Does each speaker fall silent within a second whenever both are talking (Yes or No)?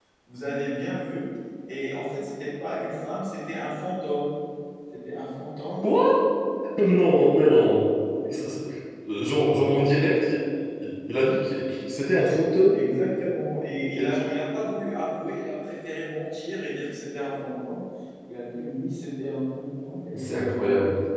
Yes